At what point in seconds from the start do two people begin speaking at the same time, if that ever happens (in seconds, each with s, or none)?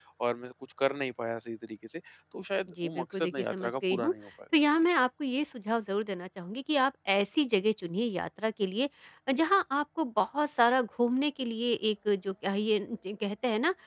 2.7 s